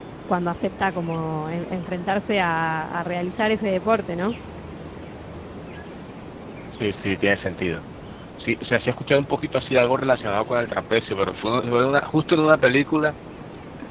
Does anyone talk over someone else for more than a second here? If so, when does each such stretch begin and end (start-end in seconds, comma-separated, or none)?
none